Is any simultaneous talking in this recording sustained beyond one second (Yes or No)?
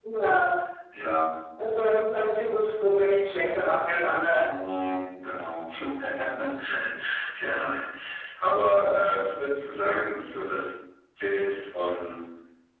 No